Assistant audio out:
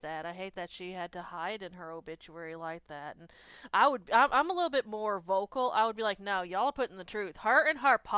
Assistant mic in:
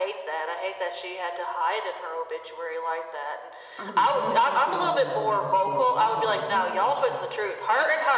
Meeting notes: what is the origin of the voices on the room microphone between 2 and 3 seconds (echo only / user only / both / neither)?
echo only